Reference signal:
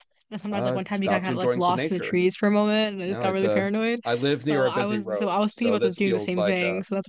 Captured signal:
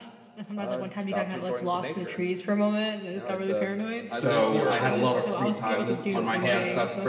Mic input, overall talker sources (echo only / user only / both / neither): both